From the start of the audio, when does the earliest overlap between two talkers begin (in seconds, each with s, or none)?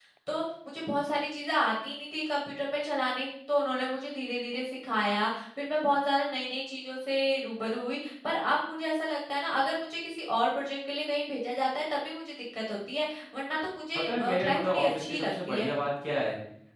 14.1 s